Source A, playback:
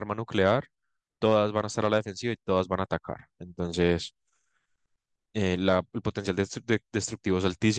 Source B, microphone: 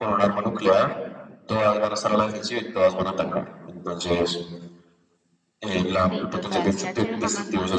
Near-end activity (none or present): present